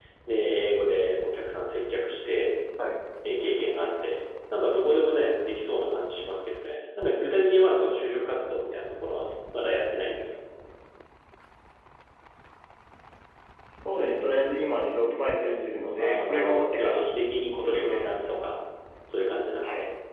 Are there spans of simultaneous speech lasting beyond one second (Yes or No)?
Yes